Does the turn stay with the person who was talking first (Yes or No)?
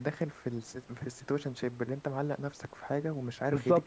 No